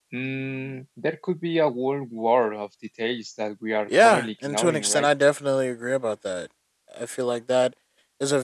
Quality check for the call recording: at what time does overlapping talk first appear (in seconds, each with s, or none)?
3.9 s